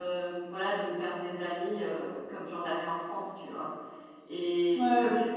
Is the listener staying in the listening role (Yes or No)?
Yes